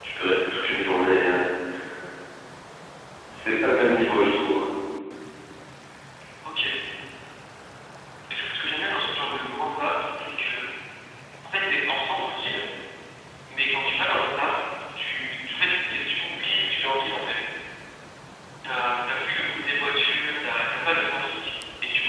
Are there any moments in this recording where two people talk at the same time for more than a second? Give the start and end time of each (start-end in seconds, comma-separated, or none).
none